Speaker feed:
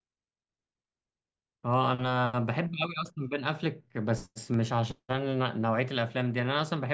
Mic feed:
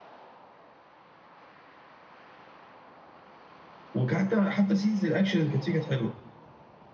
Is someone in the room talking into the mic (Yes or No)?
Yes